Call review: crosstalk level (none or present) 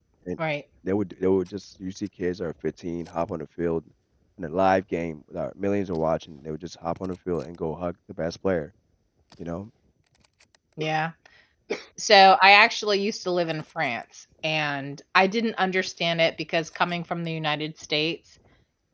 none